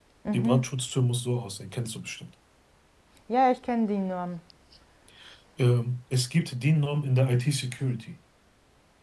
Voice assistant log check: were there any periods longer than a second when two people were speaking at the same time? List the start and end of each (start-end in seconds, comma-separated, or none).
none